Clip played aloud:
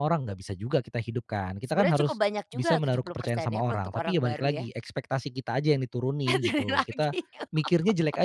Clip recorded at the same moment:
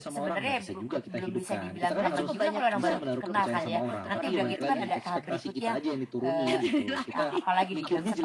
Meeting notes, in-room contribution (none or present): present